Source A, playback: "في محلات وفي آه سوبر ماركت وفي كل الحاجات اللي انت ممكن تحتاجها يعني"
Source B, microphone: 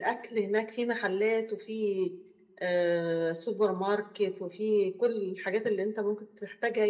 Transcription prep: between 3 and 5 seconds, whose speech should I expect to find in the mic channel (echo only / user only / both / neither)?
echo only